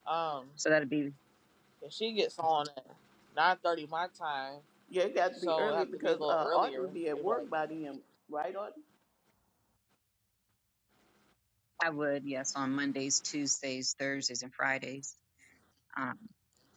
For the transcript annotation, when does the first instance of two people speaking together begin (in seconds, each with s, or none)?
5.4 s